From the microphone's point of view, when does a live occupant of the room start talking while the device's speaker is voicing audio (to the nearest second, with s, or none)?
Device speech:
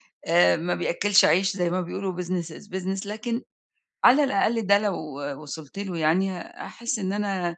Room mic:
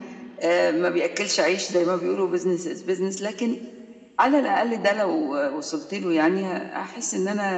none